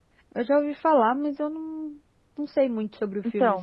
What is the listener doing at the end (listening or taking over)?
taking over